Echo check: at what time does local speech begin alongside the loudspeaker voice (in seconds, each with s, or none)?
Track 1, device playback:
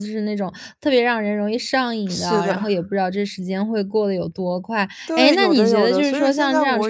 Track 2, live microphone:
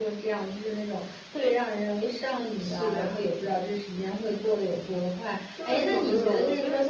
none